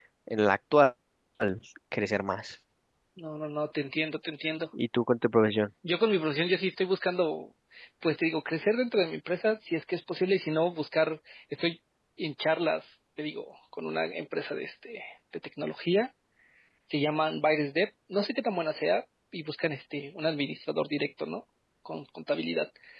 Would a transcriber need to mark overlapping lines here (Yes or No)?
No